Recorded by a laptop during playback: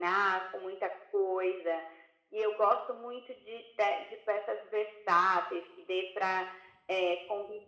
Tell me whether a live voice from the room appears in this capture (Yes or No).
No